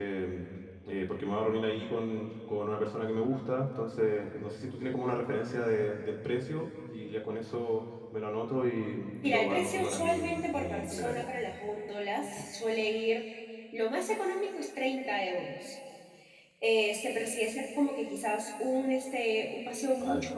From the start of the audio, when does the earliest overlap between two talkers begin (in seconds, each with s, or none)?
9.2 s